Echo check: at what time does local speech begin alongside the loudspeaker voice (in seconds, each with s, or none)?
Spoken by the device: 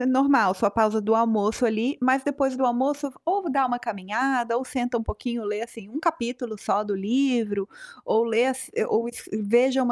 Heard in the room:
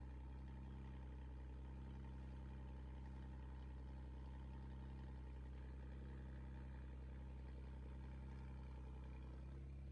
none